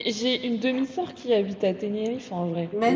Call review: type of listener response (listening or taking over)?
listening